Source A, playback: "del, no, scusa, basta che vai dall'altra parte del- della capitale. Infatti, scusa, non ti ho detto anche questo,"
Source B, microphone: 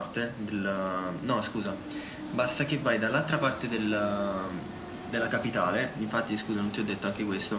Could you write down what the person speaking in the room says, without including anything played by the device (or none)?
none